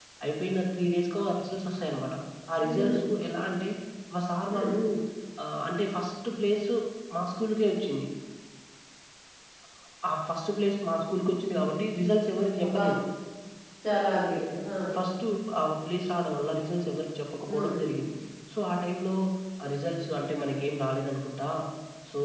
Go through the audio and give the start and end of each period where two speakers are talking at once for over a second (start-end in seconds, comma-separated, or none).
none